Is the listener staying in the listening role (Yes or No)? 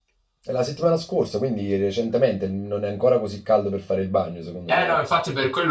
No